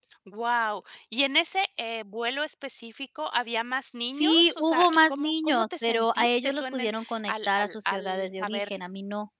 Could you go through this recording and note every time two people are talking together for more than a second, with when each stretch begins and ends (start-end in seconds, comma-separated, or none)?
4.2-8.7